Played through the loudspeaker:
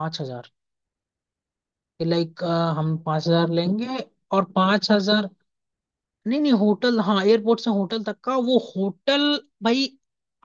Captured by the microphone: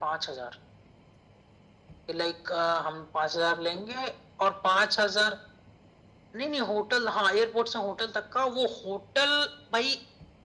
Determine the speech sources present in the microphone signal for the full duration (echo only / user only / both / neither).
echo only